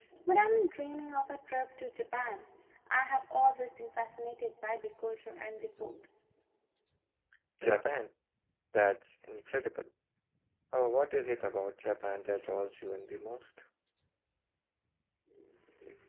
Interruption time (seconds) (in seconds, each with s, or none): none